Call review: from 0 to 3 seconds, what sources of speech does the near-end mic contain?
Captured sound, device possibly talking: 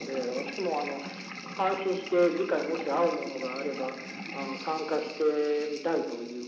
echo only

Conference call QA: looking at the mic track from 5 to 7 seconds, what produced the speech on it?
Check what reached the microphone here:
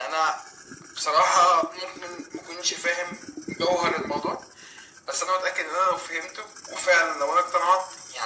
echo only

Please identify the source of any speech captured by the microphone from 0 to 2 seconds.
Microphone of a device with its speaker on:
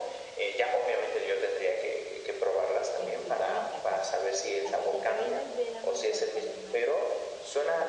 echo only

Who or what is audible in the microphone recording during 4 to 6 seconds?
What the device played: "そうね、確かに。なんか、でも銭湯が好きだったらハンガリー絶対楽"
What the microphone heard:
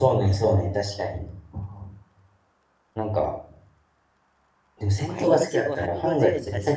both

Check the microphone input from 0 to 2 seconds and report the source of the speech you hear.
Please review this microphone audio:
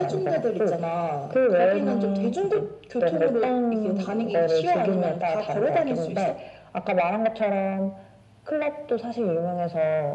echo only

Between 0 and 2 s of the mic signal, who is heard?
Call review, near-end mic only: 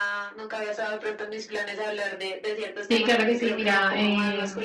echo only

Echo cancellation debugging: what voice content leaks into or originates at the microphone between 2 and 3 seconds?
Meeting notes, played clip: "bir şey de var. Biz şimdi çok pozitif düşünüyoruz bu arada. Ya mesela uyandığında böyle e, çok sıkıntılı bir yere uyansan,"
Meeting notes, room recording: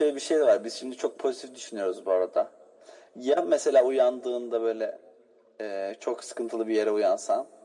echo only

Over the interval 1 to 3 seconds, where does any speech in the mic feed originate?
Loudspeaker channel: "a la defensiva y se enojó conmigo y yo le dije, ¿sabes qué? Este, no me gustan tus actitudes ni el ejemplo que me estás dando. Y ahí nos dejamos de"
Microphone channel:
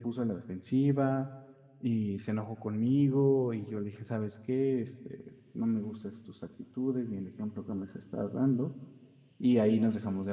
echo only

